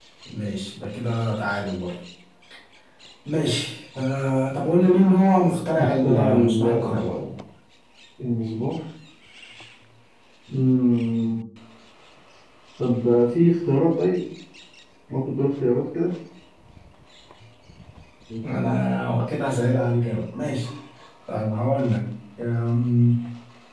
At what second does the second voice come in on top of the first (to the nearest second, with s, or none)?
6 s